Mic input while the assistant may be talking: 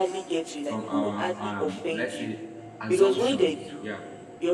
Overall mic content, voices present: both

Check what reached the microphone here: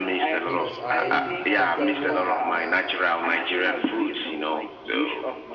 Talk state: both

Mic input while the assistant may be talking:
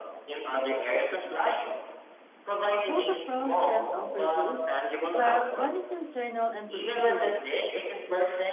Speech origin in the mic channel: both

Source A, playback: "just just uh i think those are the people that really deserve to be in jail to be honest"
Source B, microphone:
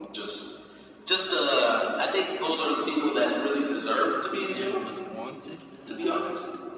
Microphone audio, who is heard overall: both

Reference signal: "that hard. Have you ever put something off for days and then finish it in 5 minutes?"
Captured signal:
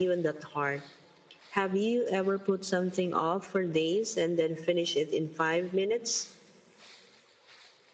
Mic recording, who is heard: echo only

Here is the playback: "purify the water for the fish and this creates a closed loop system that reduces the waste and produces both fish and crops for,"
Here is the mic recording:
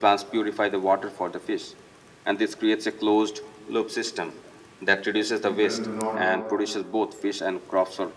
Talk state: both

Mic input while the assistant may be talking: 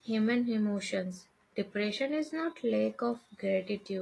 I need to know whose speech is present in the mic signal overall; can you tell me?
user only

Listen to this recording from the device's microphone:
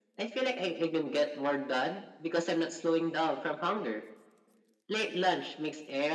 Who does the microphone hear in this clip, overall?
echo only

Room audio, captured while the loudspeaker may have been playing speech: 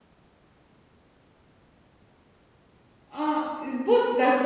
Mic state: user only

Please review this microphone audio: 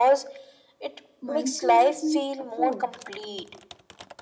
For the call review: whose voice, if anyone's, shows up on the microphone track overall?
both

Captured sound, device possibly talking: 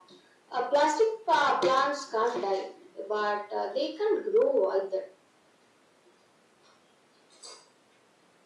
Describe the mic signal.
echo only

